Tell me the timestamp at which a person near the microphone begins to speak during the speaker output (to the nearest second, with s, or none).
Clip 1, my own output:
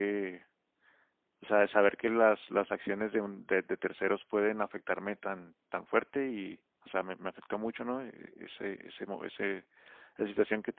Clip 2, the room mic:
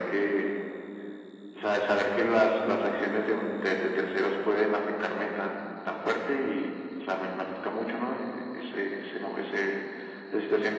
none